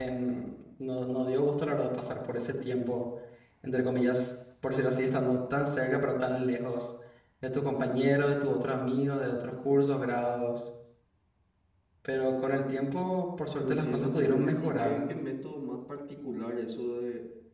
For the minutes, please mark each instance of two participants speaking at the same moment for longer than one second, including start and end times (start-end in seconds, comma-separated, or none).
13.6-15.1